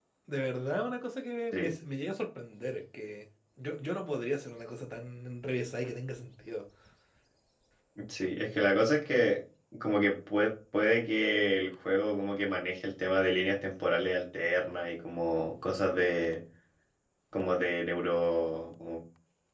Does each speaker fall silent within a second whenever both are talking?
Yes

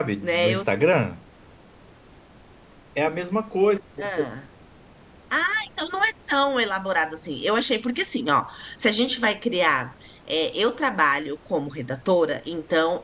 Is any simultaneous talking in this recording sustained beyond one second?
No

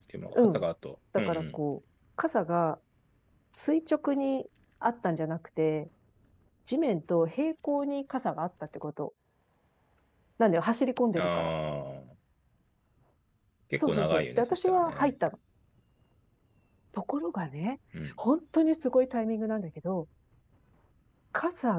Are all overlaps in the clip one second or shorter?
No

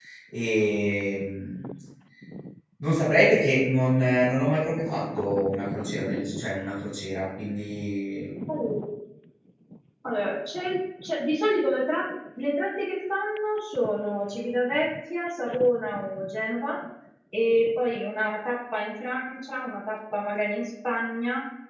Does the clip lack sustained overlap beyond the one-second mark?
Yes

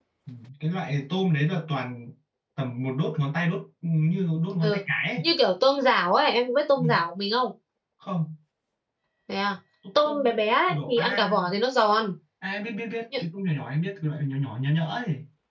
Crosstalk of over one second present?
Yes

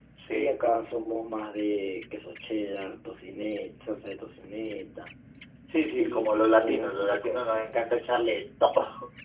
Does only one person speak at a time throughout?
No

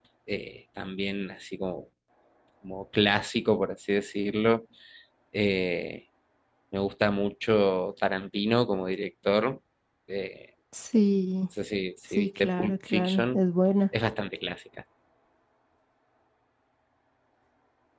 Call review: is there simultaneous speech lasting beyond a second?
Yes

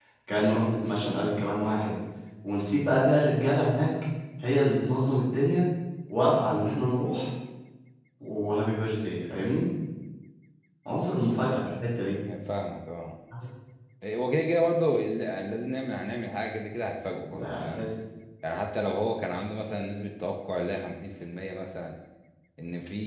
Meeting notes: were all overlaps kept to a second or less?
Yes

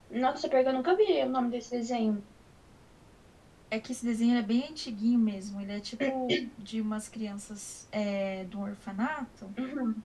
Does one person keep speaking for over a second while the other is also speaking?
No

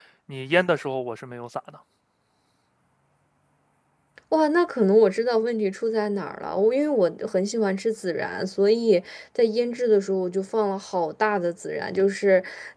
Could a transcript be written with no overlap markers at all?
Yes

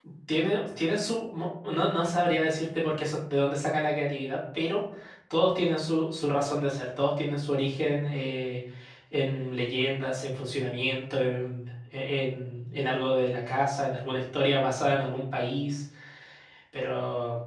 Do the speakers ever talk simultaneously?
No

